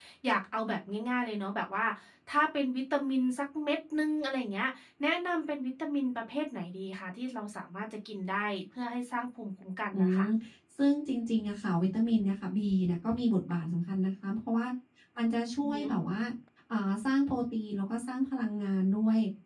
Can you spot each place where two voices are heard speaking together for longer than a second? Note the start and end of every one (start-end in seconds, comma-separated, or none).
none